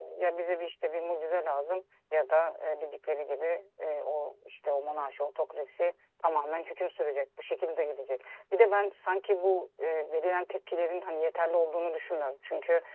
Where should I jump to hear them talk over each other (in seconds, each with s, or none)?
none